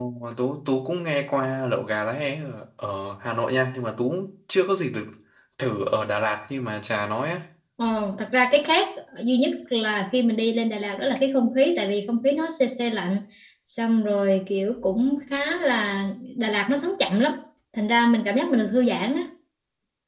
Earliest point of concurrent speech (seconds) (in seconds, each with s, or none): none